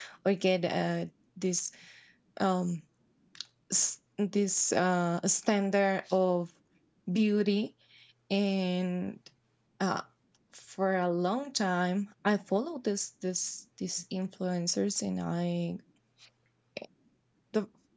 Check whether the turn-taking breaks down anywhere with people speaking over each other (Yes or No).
No